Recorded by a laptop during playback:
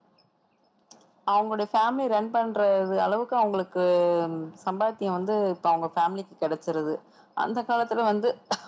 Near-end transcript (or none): none